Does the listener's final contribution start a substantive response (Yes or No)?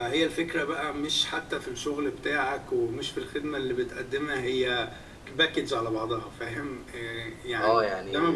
Yes